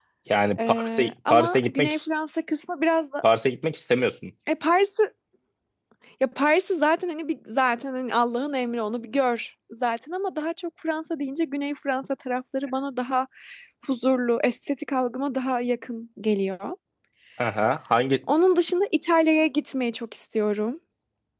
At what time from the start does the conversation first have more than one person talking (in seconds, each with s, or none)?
0.7 s